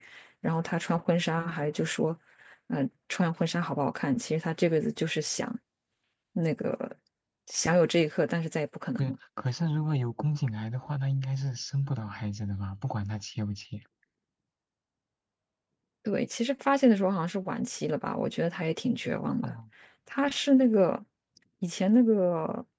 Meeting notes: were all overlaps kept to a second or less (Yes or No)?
Yes